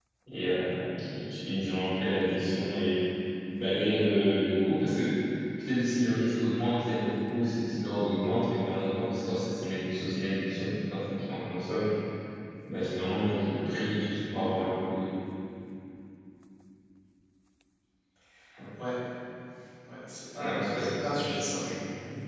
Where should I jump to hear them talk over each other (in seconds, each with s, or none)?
20.4 s